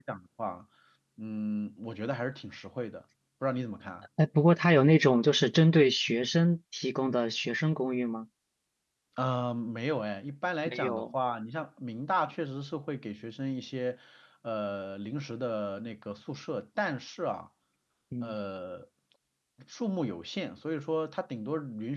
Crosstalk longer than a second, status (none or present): none